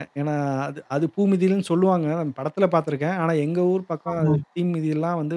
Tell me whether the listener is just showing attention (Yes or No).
Yes